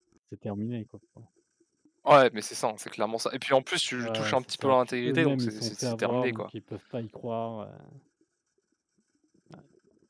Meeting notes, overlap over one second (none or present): present